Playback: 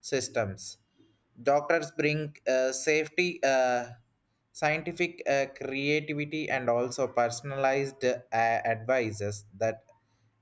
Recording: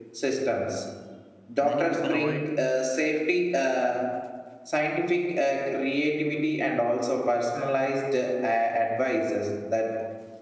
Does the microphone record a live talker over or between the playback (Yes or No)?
Yes